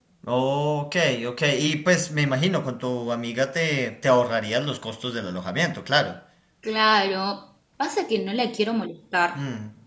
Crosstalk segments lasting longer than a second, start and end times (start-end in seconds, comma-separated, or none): none